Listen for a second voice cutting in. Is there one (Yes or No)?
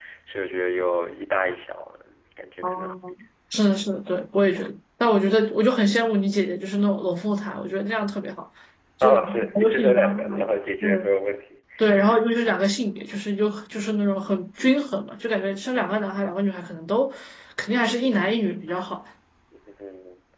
Yes